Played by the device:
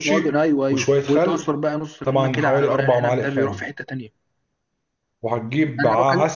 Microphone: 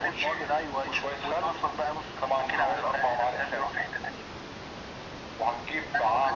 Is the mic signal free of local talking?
Yes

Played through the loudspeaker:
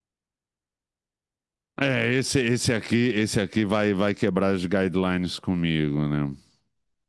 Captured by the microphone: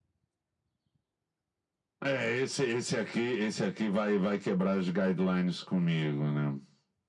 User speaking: No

